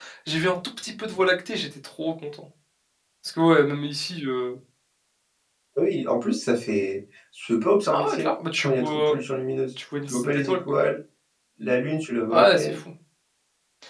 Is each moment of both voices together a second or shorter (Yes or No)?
No